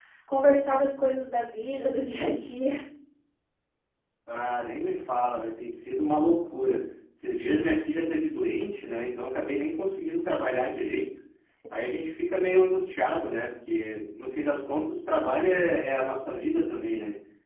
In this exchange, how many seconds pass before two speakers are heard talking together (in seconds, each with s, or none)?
none